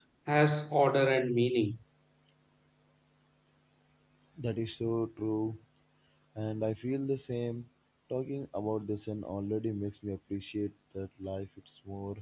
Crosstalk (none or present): none